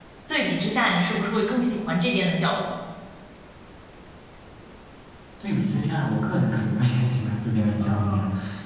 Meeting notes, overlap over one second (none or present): none